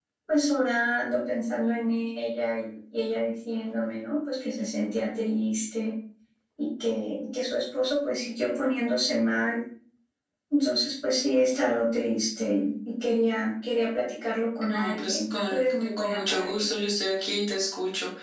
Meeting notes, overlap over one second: present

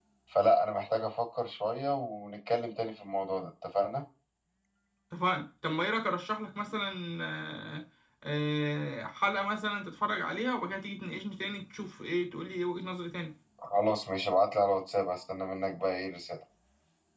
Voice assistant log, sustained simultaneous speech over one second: none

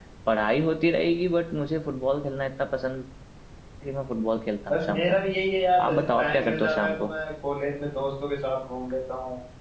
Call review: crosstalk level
present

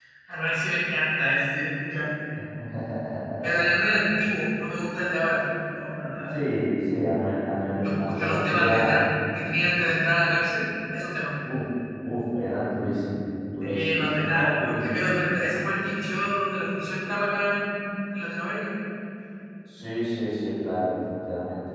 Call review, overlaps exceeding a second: present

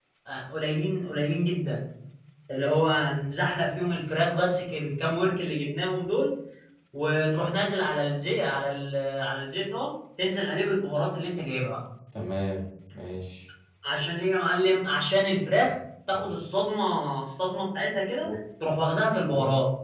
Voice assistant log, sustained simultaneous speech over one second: none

